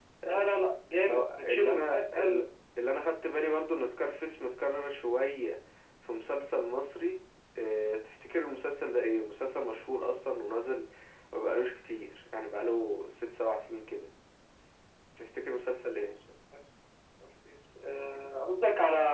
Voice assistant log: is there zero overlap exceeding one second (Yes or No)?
No